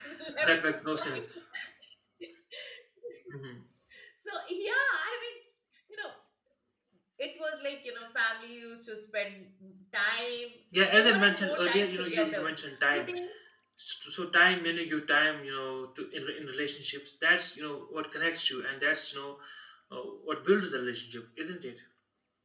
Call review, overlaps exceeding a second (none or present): present